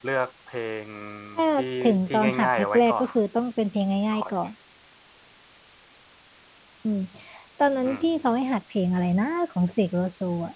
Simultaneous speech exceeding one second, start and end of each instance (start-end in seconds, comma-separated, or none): 1.8-3.1